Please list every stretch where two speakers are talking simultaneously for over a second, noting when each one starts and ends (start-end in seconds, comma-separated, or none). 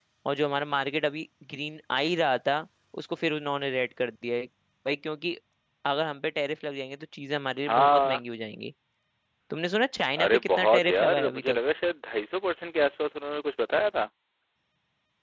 10.2-11.6